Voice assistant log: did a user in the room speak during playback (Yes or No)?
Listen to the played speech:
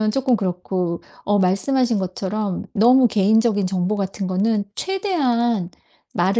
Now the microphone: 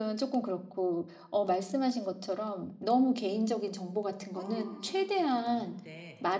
Yes